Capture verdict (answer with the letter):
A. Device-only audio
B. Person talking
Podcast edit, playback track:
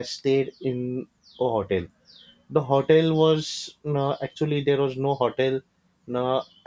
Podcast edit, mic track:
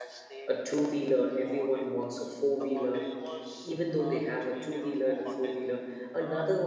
B